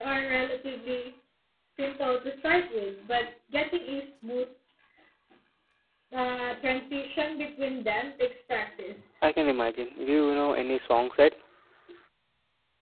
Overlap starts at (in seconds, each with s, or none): none